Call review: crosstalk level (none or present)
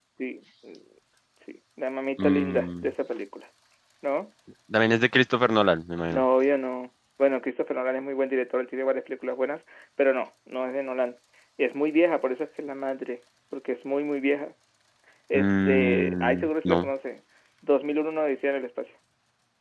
present